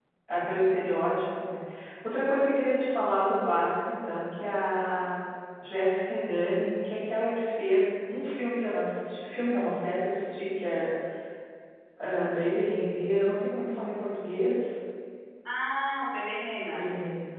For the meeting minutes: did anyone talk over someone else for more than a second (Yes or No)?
No